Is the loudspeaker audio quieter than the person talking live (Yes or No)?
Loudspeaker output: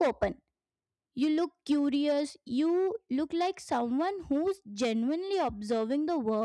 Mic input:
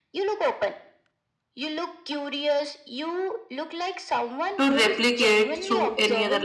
Yes